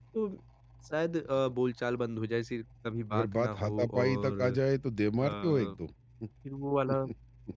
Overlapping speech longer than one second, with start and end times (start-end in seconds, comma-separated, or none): 3.1-4.4